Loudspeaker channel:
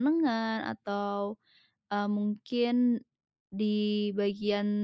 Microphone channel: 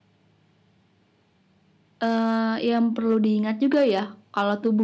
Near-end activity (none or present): present